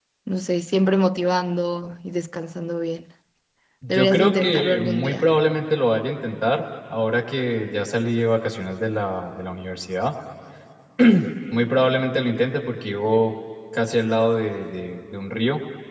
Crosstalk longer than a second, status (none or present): present